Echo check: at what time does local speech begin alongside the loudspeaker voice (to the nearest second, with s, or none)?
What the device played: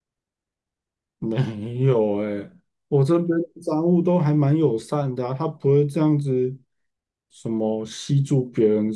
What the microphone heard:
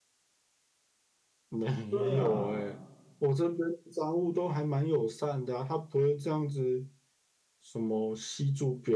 2 s